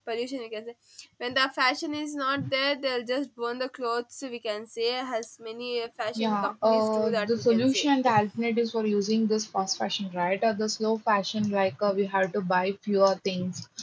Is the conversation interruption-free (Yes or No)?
No